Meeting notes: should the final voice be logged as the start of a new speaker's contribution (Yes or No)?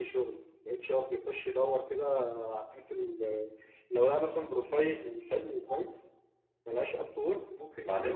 Yes